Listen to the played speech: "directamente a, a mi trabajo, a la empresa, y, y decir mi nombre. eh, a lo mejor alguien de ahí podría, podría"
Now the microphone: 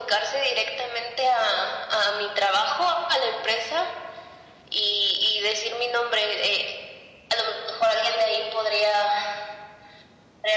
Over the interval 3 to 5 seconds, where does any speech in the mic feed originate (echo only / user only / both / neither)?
echo only